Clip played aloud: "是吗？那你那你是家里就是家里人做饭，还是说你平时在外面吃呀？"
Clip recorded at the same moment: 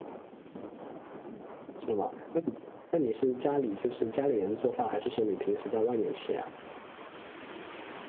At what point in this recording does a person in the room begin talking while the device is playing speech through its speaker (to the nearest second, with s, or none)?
none